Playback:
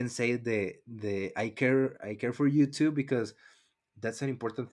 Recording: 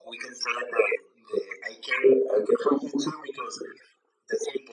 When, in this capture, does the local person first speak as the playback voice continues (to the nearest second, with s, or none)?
none